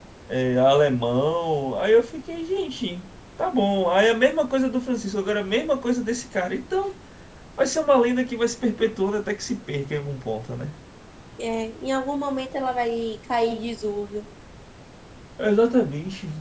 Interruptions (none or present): none